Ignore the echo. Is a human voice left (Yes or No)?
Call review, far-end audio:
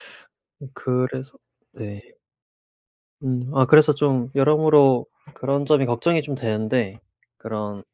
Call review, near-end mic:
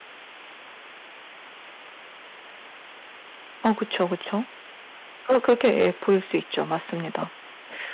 Yes